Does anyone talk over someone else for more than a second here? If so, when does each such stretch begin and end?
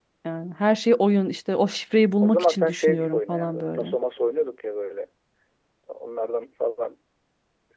2.2-4.0

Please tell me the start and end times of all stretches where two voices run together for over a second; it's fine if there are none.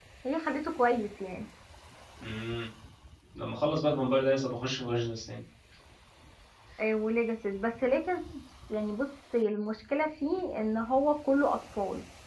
none

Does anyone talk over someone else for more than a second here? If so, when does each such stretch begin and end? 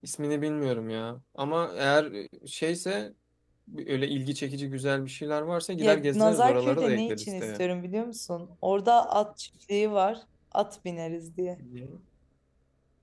5.8-7.6

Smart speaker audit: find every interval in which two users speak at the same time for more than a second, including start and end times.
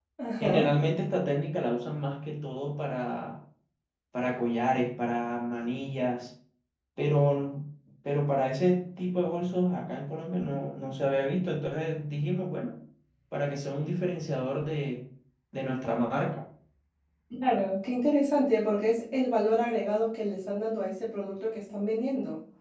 none

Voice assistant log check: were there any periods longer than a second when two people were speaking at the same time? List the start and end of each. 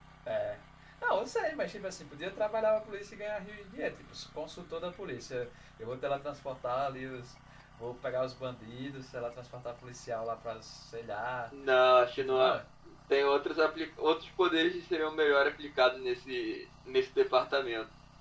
none

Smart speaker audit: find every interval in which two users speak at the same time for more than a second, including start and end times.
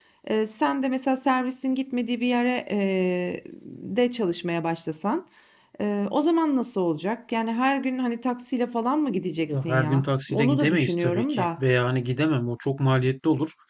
9.5-11.6

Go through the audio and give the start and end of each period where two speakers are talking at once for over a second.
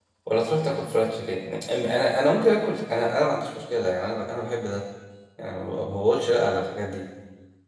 none

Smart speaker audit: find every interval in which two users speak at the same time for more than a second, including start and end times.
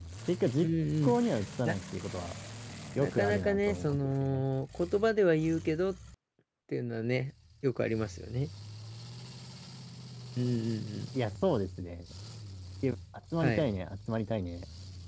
3.0-4.4

